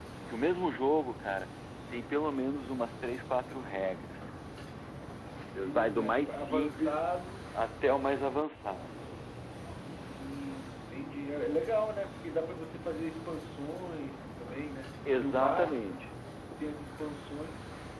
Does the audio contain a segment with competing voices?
Yes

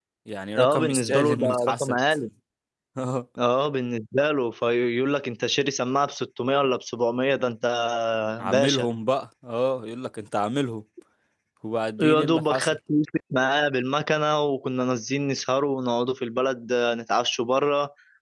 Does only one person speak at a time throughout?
No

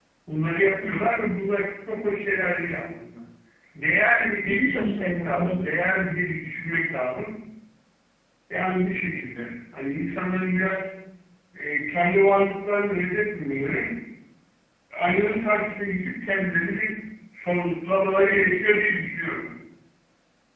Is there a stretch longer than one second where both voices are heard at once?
Yes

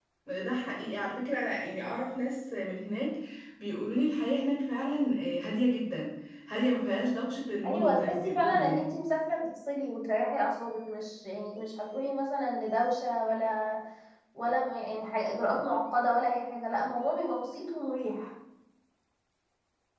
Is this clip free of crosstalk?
No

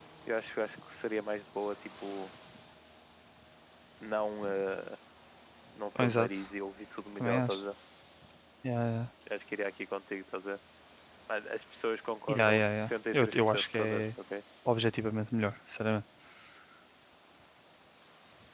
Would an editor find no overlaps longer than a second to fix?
No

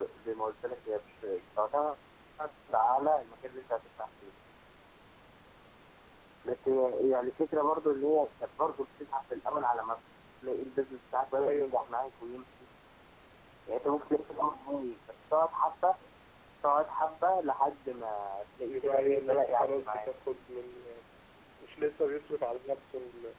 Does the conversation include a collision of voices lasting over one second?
Yes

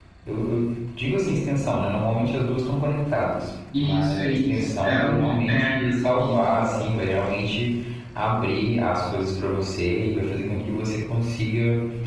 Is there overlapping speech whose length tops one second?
Yes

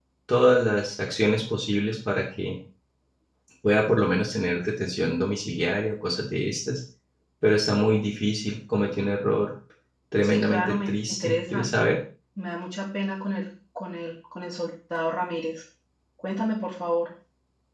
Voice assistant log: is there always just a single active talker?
No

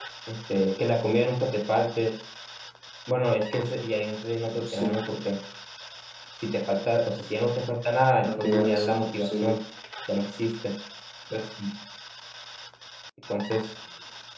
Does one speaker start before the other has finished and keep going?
Yes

